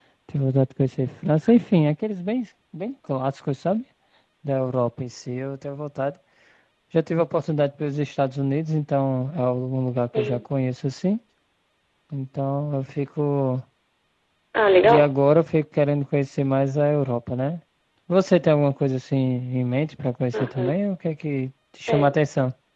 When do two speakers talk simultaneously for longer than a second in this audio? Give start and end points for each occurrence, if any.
none

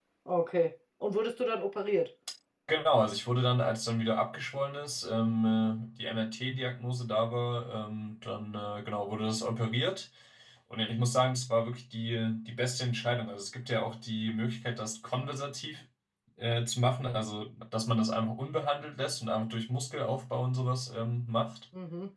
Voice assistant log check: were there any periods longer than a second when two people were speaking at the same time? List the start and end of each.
none

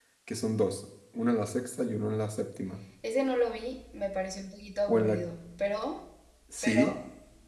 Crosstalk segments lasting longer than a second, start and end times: none

